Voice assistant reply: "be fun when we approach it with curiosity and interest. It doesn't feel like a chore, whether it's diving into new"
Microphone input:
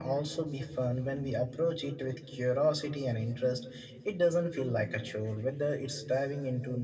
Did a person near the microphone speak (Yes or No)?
No